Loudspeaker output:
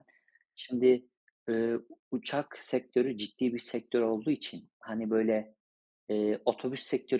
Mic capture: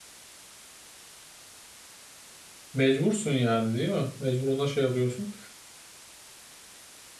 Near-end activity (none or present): present